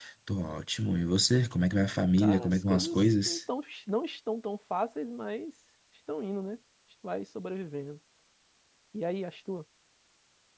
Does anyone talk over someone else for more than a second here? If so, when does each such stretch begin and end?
2.2-3.4

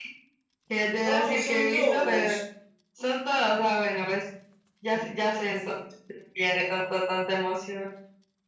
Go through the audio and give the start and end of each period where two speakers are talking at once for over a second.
1.0-2.4

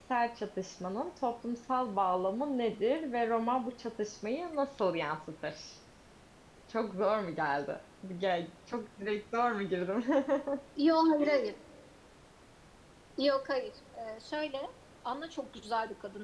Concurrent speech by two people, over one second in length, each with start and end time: none

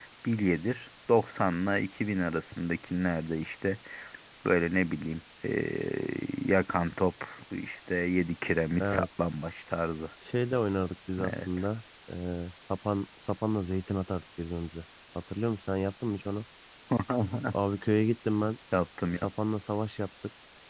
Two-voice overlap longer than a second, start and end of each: none

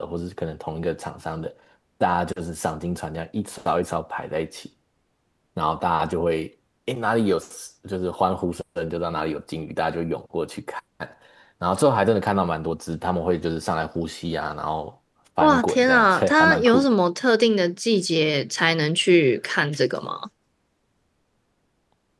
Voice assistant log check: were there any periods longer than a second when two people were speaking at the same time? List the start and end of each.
15.4-17.0

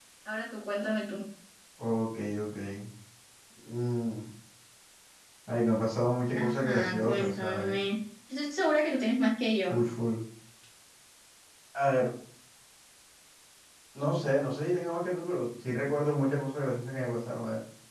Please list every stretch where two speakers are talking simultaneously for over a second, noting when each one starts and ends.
6.3-7.8

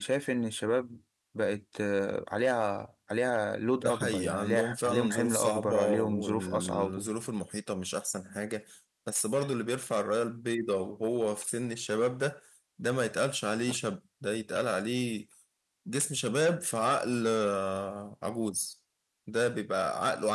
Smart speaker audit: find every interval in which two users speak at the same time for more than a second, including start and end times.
3.8-7.1

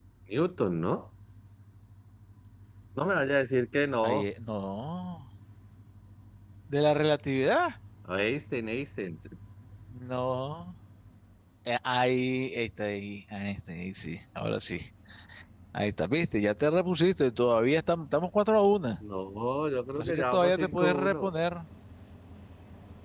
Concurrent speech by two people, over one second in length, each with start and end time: 20.0-21.3

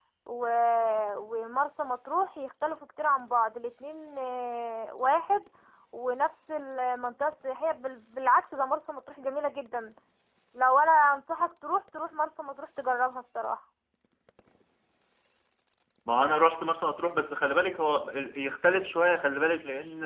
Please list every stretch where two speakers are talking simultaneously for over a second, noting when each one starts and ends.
none

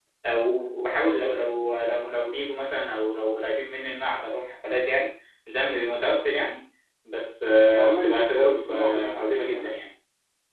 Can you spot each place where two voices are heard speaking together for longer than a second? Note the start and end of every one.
7.7-9.7

